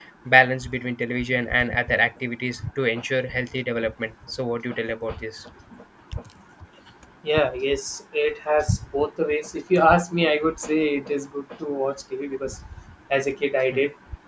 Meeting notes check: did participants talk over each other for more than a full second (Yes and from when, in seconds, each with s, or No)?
No